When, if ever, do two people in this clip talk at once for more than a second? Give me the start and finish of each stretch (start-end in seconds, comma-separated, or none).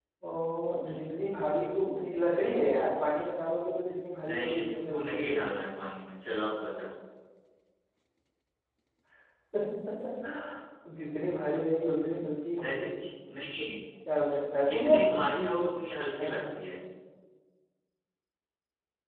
4.3-5.5